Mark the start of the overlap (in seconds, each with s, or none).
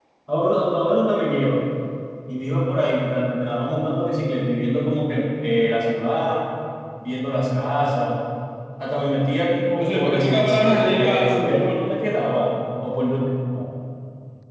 9.8 s